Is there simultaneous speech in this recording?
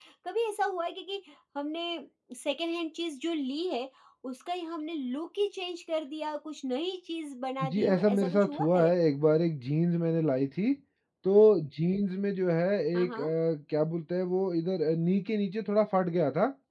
Yes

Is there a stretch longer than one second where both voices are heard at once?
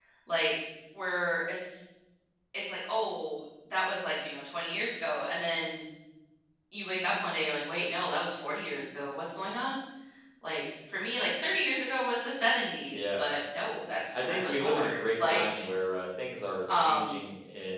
Yes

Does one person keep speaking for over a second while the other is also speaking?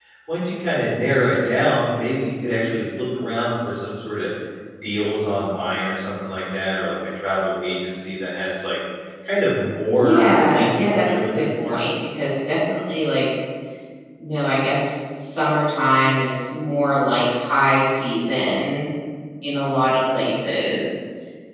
Yes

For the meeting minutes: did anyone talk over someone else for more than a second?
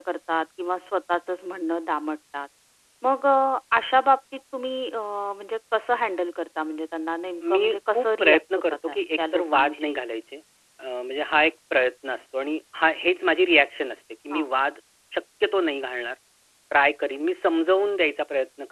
Yes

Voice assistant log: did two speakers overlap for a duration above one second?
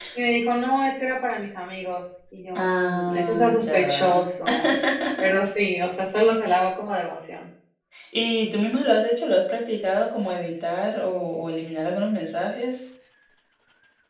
Yes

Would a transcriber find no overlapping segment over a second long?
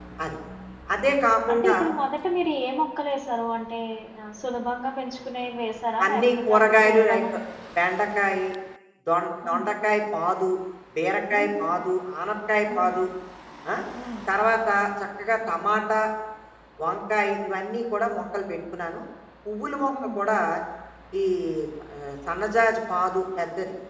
No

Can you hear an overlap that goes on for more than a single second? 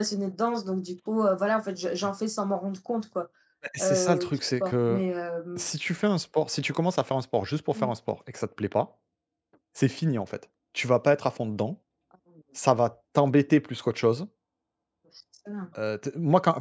Yes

